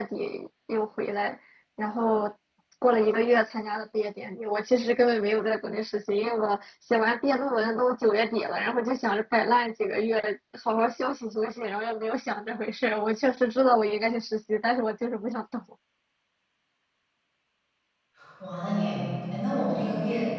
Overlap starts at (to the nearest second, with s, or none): none